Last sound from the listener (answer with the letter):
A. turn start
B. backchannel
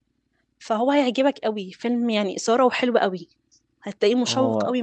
B